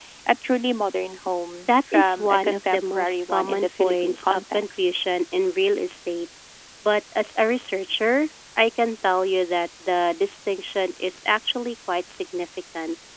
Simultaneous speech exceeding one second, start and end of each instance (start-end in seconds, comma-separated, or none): 1.7-4.8